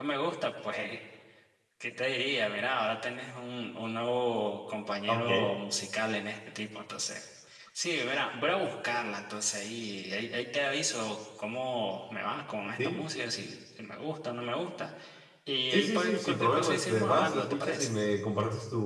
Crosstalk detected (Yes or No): Yes